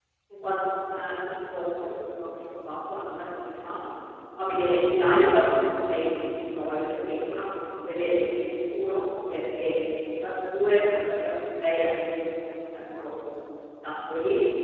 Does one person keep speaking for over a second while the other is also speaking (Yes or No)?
No